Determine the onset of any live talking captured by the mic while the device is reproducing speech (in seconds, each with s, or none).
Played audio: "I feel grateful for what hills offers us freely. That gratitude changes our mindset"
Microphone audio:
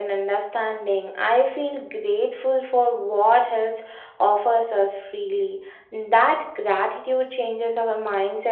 none